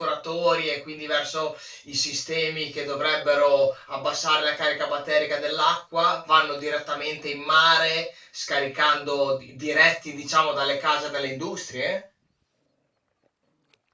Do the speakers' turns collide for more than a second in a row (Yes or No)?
No